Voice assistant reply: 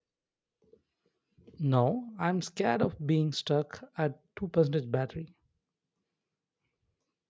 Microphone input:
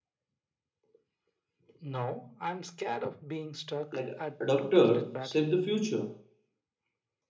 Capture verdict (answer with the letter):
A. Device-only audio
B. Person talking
B